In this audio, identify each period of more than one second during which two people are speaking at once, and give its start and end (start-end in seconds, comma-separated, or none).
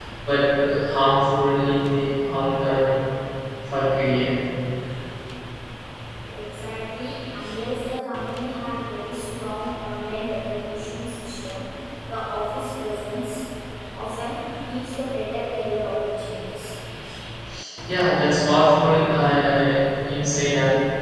none